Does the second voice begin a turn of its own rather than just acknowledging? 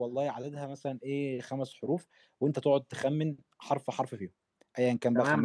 Yes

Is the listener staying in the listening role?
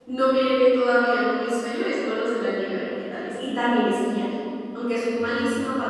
Yes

